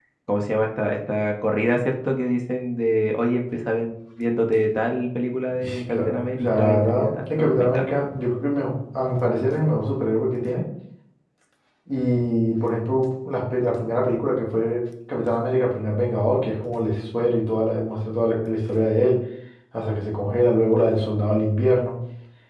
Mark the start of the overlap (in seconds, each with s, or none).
5.6 s